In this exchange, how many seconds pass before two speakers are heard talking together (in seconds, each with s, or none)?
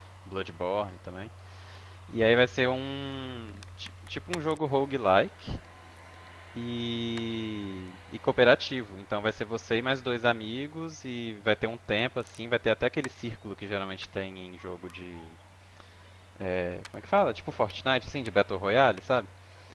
none